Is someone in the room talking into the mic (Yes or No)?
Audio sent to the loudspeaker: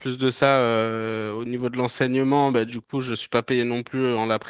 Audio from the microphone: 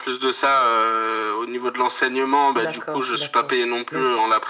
Yes